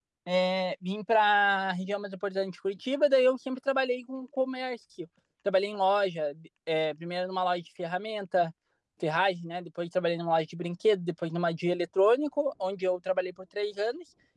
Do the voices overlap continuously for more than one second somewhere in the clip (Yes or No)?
No